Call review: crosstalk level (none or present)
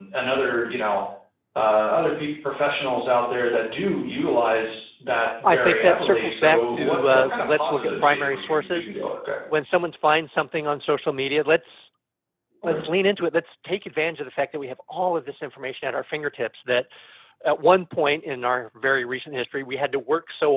present